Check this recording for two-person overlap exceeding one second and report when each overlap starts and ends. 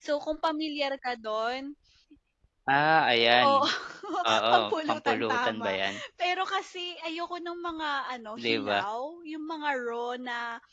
4.5-5.8

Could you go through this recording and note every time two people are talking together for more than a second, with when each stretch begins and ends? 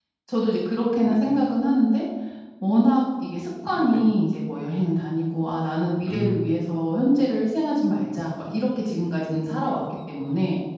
none

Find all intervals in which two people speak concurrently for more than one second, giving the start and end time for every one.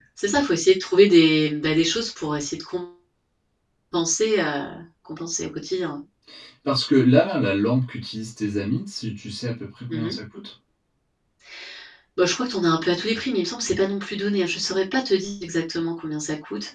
none

